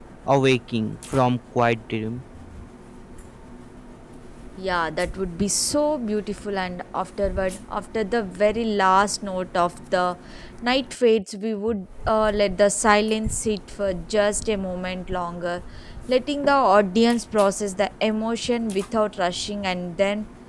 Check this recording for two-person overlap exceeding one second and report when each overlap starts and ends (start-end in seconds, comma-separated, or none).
none